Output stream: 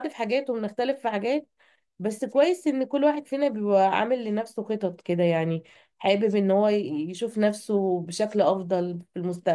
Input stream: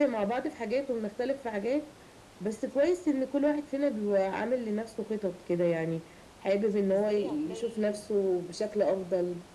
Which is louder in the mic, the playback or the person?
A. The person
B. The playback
B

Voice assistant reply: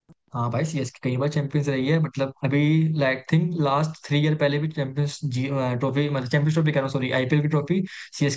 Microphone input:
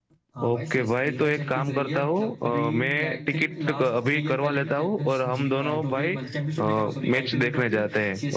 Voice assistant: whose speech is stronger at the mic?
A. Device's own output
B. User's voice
B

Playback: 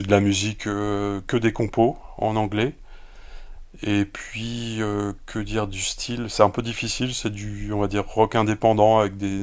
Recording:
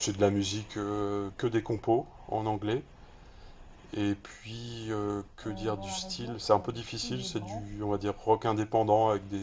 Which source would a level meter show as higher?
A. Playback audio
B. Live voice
A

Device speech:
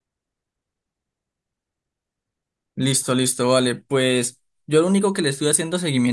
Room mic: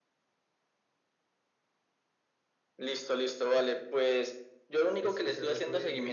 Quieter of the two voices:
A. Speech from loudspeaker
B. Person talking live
B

